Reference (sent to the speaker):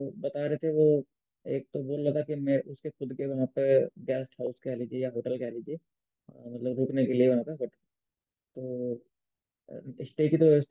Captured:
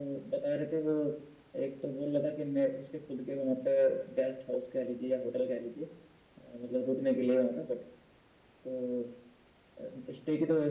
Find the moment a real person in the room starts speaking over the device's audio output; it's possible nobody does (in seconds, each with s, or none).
none